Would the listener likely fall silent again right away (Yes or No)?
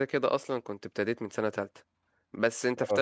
Yes